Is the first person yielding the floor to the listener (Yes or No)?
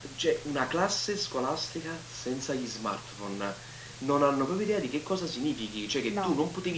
No